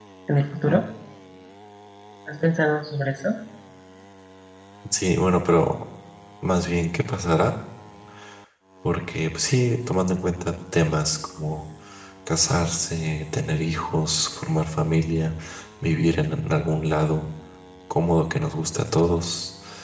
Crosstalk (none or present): none